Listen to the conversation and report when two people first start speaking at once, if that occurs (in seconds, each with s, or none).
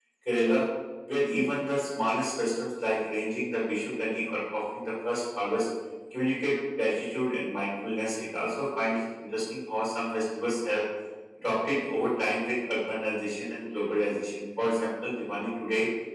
none